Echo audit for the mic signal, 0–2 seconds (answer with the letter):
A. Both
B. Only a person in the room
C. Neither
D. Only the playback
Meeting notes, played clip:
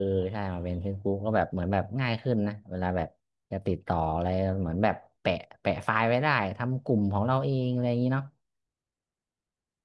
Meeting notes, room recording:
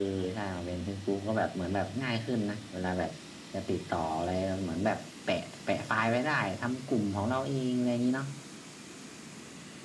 D